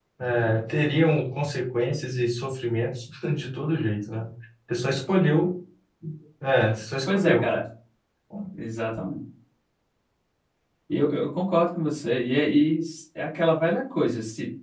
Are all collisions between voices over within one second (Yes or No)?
Yes